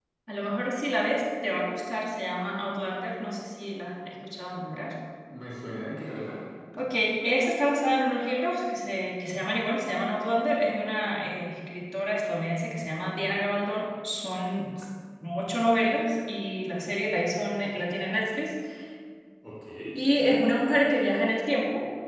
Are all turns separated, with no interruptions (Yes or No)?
Yes